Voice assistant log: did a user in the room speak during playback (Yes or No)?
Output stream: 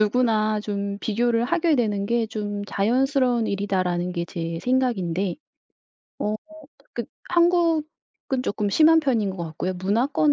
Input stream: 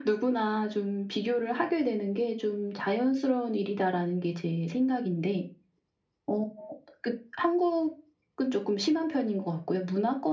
No